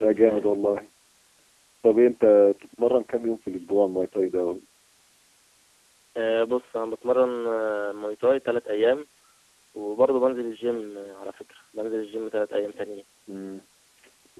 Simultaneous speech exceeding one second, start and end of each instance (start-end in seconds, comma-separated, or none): none